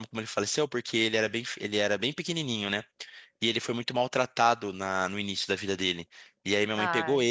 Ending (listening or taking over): listening